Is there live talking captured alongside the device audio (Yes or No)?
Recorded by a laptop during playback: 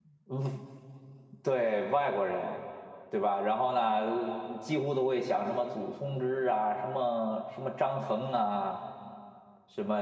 Yes